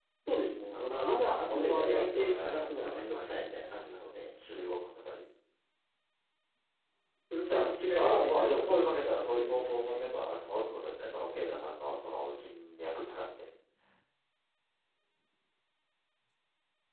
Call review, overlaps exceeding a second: present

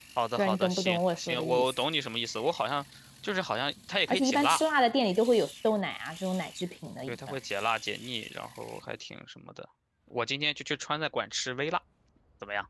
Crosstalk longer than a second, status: present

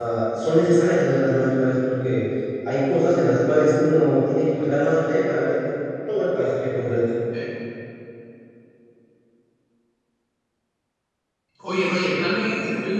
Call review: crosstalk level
none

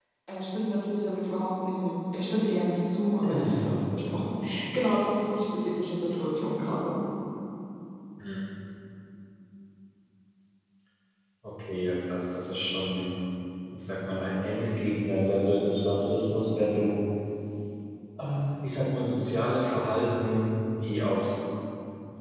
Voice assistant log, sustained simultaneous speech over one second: none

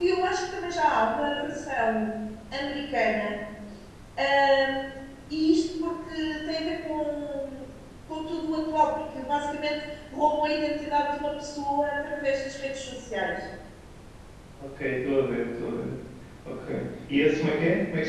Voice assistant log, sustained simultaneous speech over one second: none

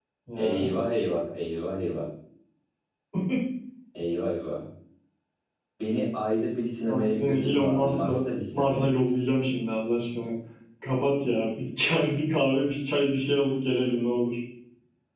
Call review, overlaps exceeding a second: present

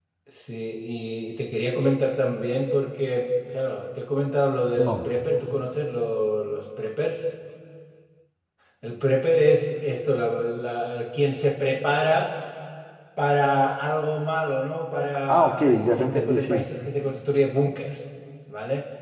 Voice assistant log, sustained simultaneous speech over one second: present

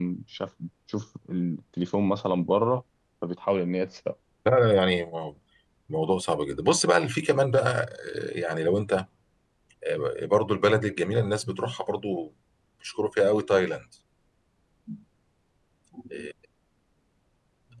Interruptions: none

